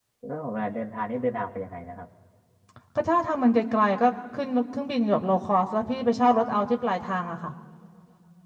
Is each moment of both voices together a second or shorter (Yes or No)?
Yes